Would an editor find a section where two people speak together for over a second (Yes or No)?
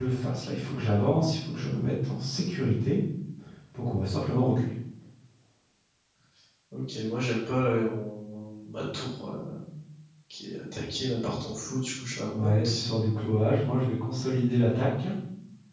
No